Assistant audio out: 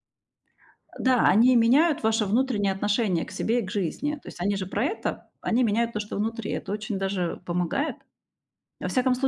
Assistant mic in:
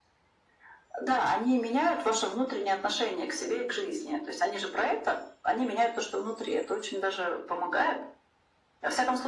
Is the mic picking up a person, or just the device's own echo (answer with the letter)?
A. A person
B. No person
B